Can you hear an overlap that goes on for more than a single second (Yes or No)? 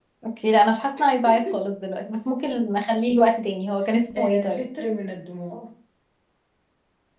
No